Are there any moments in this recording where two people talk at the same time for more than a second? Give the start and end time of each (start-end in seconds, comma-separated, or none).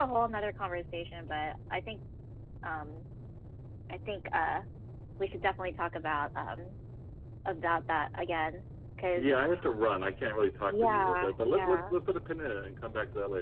10.7-11.9